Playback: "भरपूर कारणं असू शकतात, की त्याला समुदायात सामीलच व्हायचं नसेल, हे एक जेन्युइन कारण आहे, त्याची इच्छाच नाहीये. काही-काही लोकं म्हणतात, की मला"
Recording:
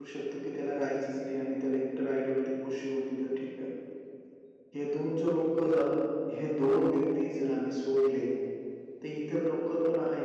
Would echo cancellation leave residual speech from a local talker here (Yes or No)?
Yes